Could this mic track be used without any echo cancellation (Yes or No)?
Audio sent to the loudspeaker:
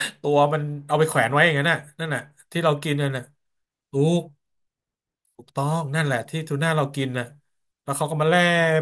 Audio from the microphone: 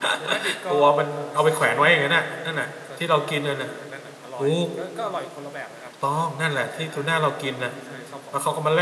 No